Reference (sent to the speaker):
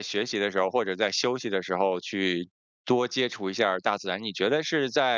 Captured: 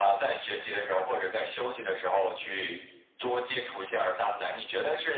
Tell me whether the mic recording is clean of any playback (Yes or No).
No